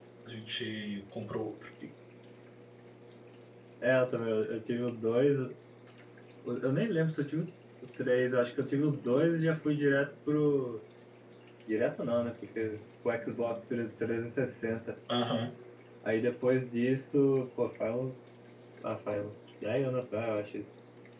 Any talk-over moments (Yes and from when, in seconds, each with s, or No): No